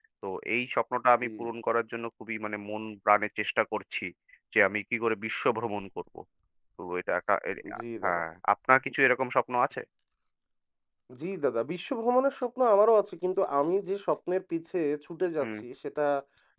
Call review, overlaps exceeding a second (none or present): none